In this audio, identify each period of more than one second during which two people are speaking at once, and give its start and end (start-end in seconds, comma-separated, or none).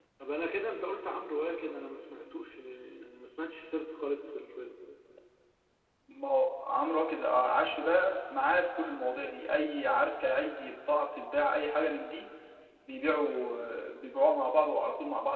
none